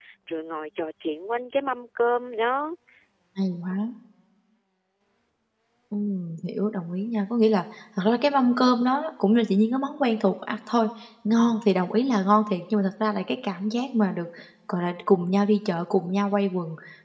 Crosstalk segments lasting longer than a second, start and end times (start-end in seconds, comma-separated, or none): none